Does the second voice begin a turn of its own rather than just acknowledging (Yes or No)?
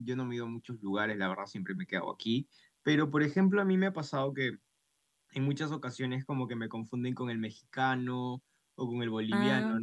No